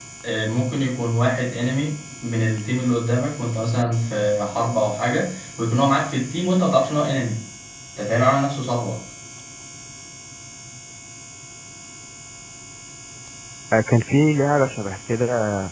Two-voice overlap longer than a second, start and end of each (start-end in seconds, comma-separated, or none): none